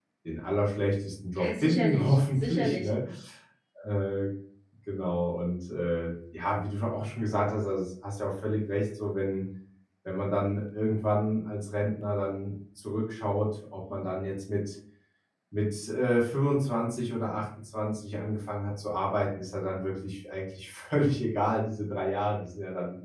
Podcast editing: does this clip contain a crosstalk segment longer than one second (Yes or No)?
Yes